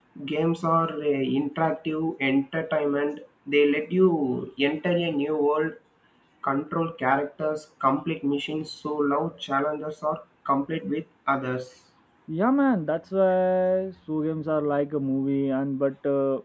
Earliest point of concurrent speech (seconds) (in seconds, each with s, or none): none